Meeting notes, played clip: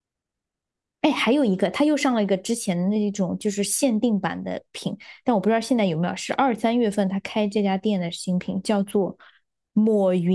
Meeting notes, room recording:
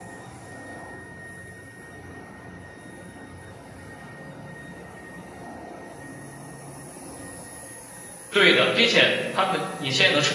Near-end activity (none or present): present